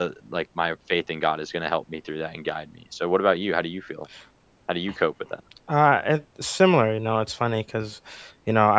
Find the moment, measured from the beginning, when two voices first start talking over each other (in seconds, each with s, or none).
none